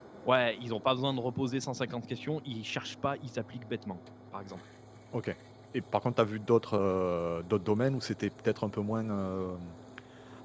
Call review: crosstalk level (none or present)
none